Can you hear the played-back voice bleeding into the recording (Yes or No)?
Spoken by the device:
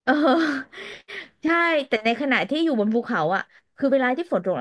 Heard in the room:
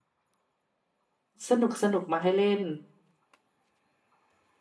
No